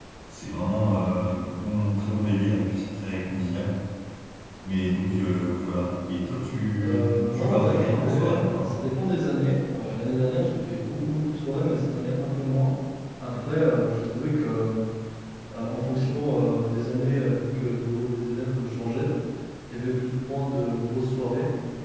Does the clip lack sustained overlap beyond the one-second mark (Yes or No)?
No